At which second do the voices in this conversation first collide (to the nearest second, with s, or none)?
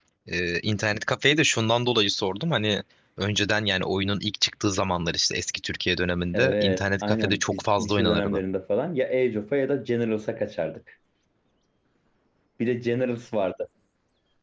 6 s